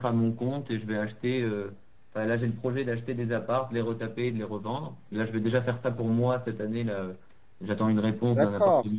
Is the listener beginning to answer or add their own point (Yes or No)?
Yes